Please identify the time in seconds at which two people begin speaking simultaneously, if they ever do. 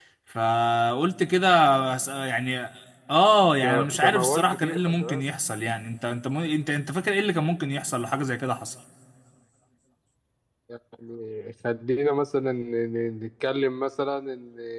4 s

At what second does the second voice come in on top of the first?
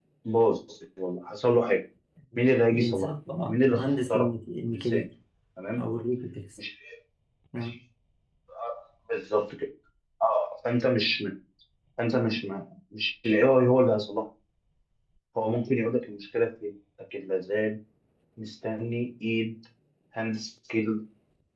3 s

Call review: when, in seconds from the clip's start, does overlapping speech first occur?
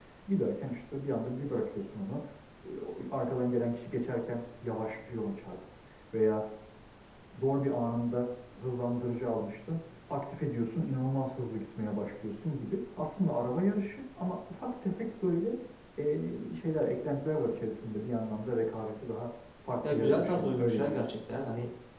20 s

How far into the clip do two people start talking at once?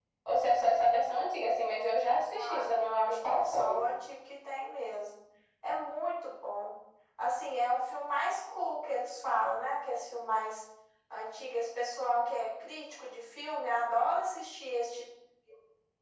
2 s

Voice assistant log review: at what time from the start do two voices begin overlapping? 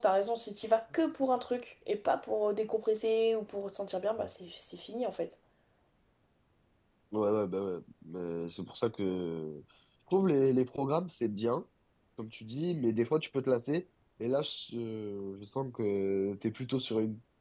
none

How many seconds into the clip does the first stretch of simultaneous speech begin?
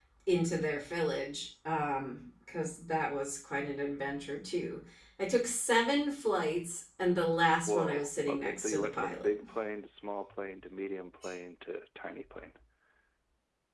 8 s

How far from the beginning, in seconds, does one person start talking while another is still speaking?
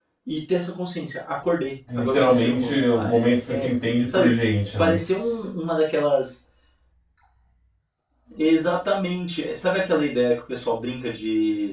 2 s

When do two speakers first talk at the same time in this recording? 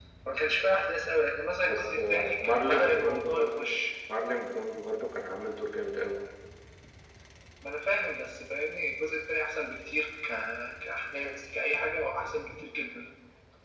2 s

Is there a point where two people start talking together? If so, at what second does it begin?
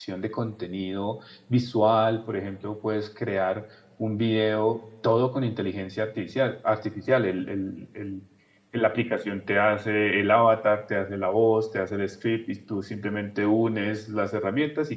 none

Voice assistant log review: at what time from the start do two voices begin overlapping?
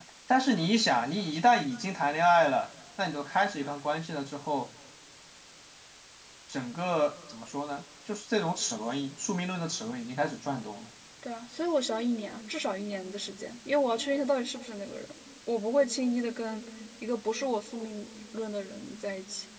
none

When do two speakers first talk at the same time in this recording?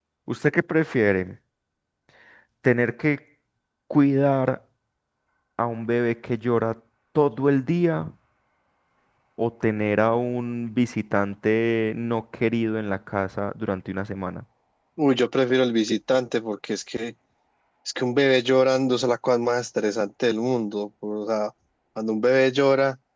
none

